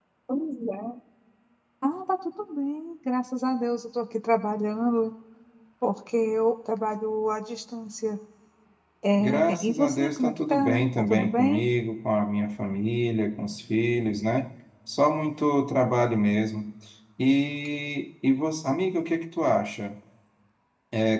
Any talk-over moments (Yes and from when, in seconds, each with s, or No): Yes, from 9.2 s